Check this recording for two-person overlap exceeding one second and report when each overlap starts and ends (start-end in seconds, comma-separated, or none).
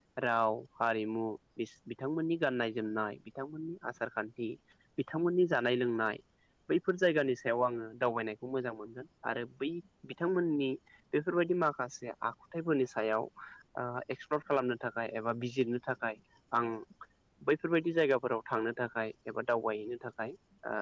none